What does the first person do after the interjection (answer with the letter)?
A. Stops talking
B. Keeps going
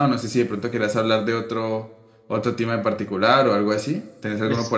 A